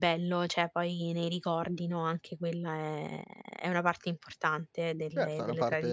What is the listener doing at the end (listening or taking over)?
taking over